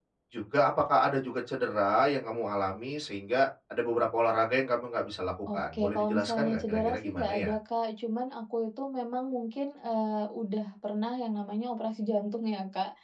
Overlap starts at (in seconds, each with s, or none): 5.5 s